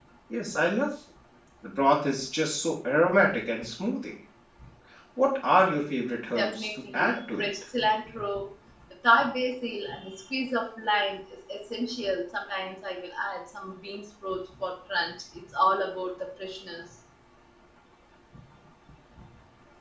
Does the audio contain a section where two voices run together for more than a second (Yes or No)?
Yes